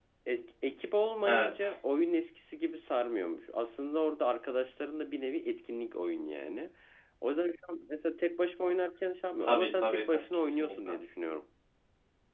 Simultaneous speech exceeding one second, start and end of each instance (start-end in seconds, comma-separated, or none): 9.4-10.9